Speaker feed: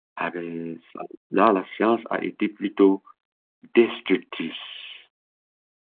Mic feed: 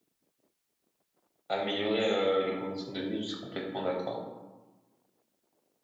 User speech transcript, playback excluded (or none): Améliorer euh, les conditions de vie, je suis complètement d'accord.